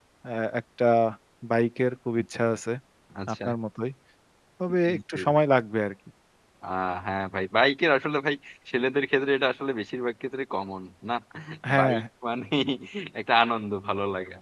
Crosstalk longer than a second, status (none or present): none